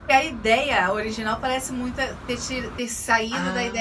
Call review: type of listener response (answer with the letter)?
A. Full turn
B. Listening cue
A